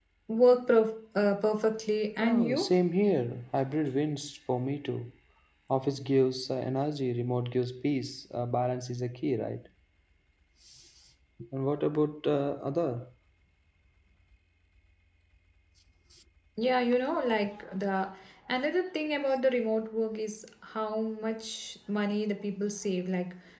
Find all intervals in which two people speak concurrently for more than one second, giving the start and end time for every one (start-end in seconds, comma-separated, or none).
none